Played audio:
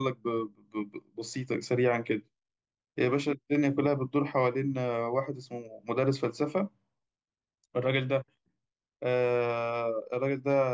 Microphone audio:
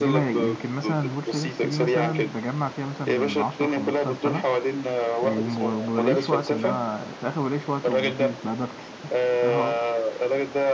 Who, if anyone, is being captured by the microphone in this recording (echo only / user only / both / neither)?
both